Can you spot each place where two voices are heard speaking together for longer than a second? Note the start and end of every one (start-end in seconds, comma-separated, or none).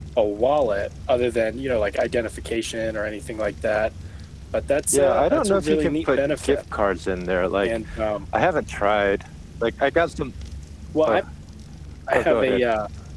4.9-6.6